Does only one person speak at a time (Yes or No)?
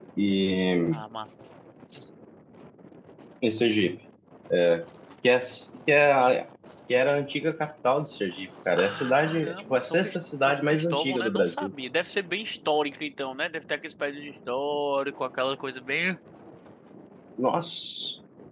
No